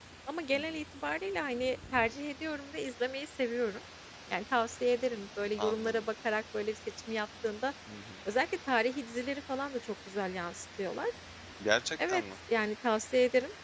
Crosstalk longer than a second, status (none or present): none